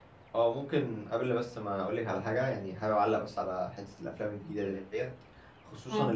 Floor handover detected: No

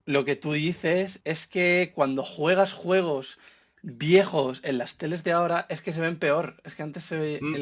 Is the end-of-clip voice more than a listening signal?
No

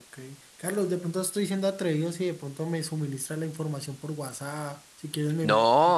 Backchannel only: No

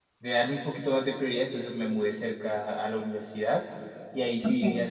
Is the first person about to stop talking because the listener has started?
No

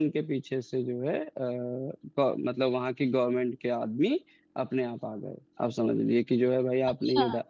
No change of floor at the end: Yes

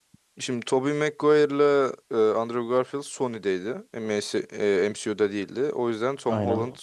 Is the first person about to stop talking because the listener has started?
No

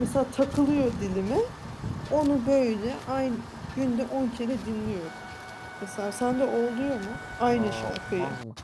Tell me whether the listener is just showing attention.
No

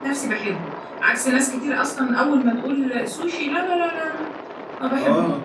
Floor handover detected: Yes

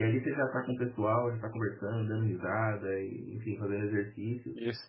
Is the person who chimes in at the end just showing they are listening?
No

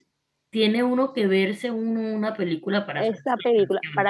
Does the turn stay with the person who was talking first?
No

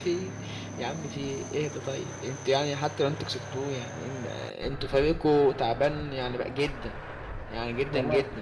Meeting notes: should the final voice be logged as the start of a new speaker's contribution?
Yes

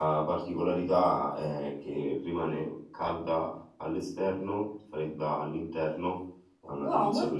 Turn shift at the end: Yes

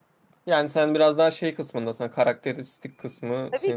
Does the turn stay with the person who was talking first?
No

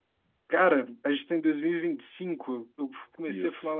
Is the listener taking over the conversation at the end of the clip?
No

